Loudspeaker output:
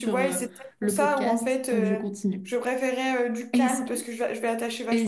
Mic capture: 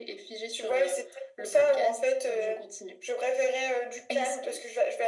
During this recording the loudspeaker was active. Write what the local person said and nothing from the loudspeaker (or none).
none